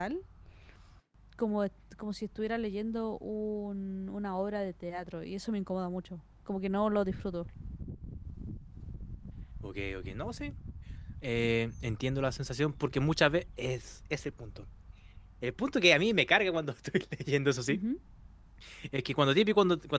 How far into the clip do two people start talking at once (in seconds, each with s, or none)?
none